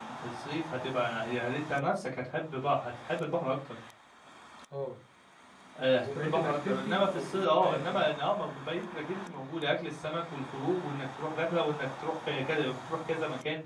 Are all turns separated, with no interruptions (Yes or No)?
No